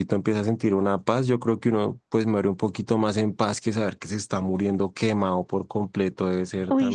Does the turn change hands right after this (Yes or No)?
Yes